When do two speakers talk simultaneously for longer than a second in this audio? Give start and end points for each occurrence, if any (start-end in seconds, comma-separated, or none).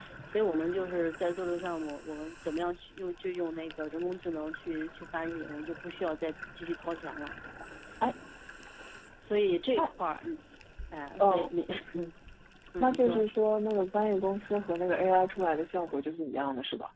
none